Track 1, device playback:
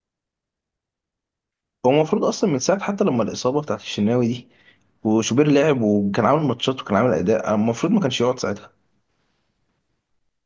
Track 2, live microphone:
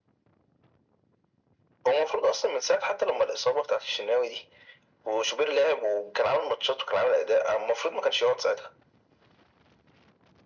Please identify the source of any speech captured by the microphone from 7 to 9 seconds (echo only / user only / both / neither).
echo only